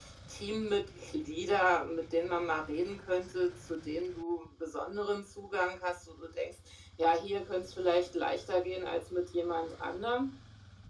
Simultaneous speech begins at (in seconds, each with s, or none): none